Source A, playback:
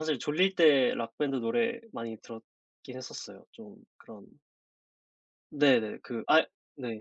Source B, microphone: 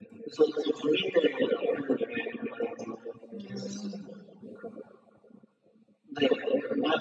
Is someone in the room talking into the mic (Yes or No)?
Yes